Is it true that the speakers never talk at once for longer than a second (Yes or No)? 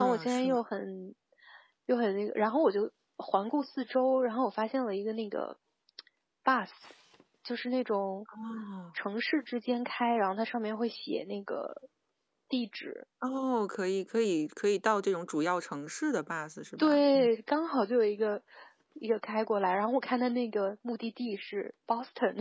Yes